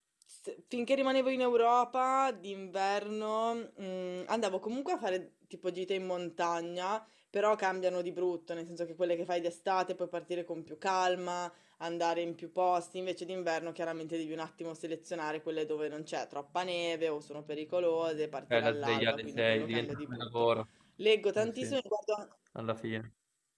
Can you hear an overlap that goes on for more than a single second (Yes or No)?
Yes